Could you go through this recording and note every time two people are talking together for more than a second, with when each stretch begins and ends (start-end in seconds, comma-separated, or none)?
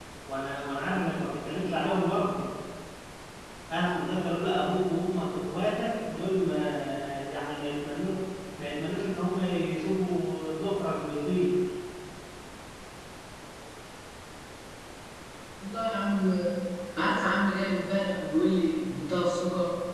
none